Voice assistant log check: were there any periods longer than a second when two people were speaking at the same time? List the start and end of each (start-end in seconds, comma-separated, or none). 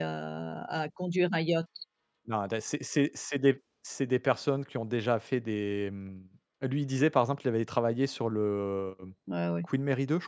none